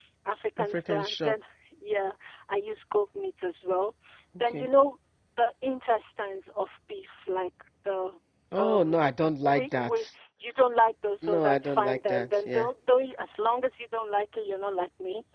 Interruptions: present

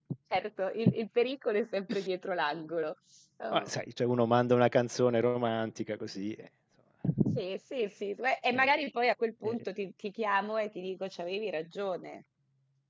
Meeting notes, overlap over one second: none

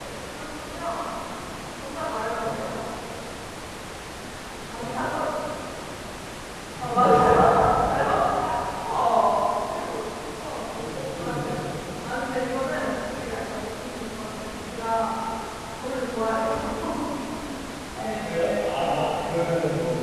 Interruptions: present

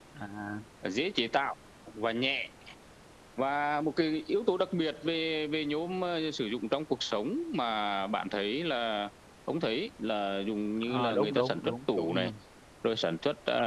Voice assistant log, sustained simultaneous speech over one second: present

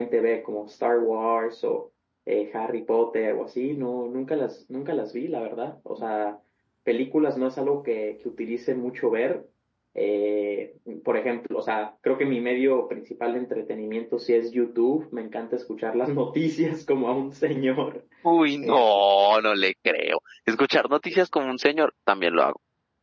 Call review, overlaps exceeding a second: none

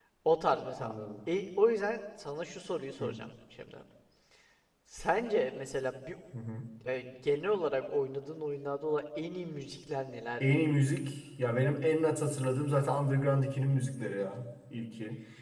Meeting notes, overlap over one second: none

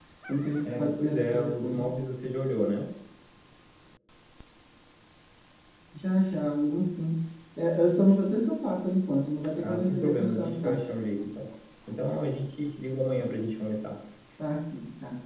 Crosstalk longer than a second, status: present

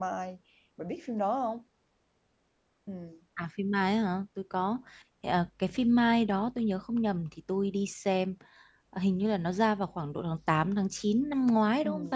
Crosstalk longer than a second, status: none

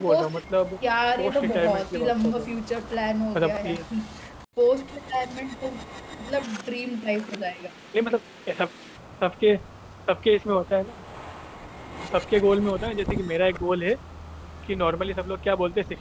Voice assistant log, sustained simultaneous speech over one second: present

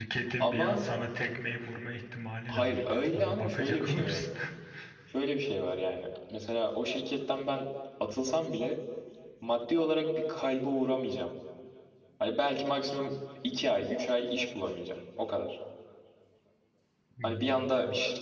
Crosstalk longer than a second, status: present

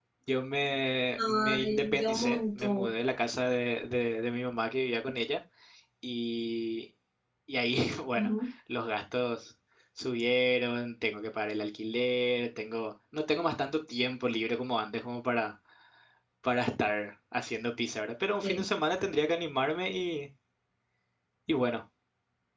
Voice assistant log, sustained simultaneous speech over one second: present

